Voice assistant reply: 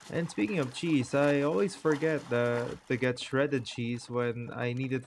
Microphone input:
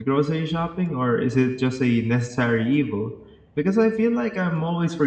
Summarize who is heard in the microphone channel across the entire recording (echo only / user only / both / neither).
user only